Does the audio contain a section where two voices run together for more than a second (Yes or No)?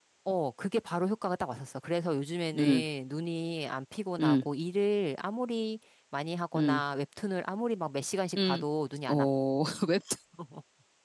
No